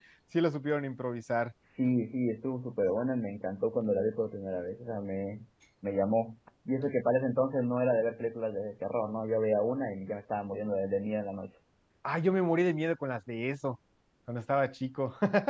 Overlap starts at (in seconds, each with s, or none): none